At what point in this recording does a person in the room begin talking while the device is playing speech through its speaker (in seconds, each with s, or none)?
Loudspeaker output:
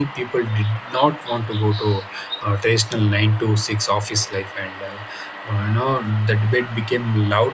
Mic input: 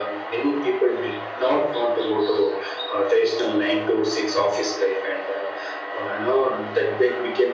none